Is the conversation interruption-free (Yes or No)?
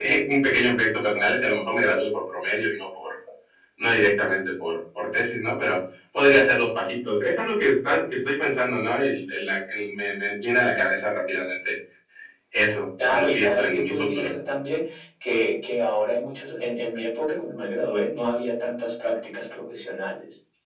No